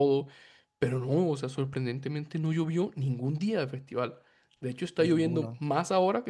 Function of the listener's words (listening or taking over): listening